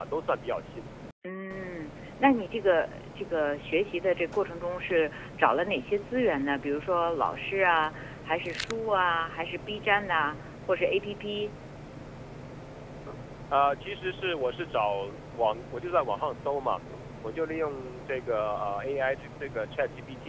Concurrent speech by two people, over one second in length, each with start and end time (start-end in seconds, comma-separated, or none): none